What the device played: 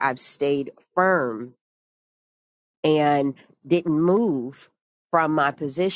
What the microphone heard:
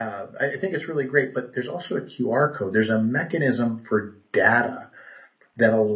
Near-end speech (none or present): present